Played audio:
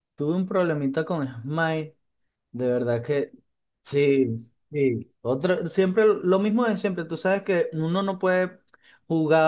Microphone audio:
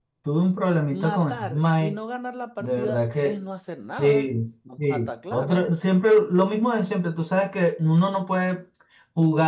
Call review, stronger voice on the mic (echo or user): echo